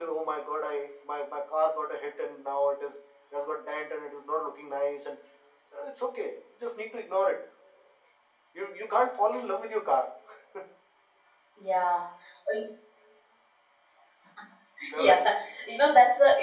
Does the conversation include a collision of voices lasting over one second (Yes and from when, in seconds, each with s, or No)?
No